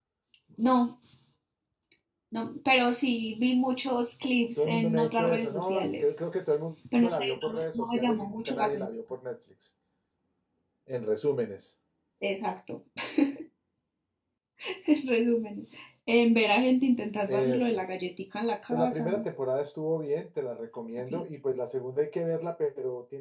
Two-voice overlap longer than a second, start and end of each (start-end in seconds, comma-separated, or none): 4.6-6.1, 7.0-8.9